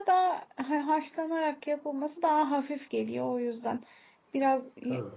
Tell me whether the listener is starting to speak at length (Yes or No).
No